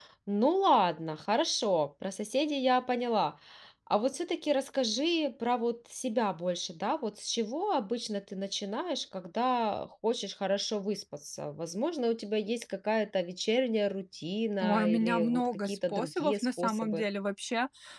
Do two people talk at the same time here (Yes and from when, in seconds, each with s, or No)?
Yes, from 14.6 s